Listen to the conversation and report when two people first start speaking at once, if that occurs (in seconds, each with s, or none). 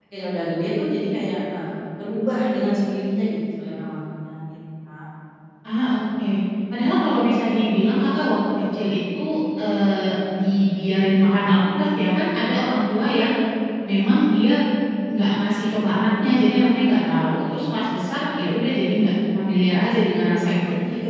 none